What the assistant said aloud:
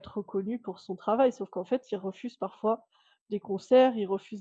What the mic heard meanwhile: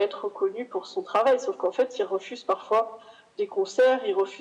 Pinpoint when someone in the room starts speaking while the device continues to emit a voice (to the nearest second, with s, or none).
none